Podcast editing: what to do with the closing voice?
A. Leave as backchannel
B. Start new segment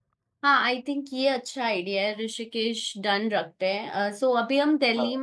A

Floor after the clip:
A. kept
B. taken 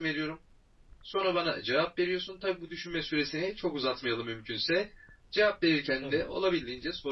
A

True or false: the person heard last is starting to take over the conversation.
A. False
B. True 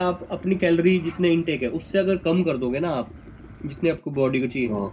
A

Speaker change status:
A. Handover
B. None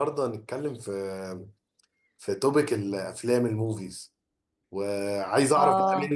B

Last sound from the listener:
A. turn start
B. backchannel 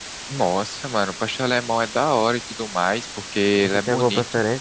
A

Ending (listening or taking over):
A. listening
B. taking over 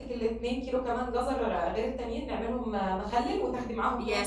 B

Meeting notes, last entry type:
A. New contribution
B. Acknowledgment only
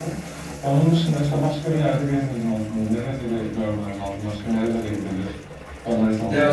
A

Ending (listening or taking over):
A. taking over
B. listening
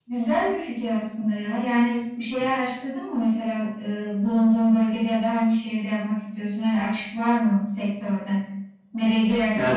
B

